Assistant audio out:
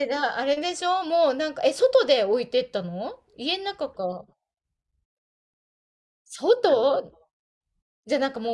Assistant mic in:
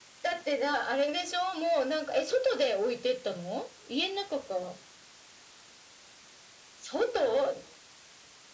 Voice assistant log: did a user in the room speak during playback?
No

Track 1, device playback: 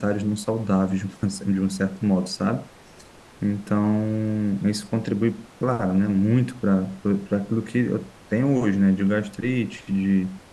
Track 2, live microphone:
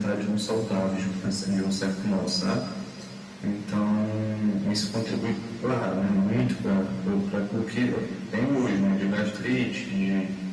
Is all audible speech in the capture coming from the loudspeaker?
Yes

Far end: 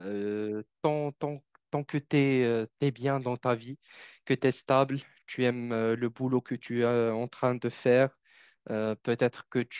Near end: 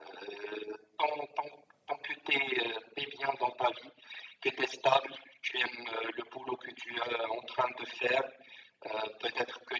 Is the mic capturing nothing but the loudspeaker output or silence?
Yes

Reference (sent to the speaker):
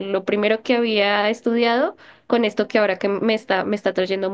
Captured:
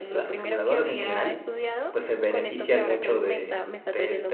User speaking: Yes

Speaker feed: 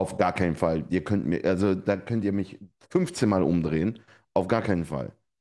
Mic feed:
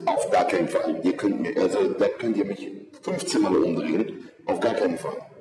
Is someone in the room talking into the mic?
No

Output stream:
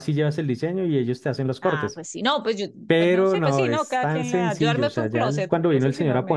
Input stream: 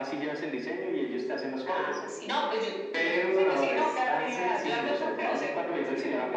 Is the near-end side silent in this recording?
Yes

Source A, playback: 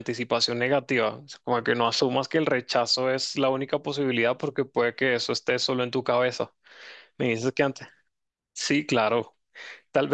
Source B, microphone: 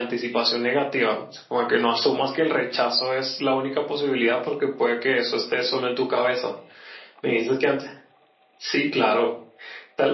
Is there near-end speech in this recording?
No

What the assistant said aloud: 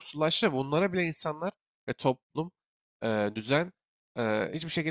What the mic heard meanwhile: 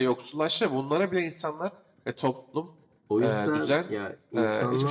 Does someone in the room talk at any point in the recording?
Yes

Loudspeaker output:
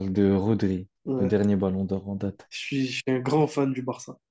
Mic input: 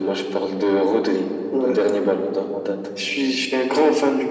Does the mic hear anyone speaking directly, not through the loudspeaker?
No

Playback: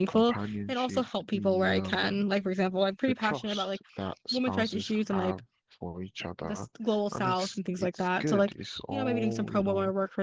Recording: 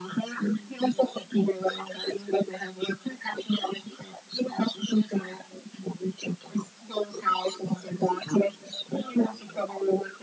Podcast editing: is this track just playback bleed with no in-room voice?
Yes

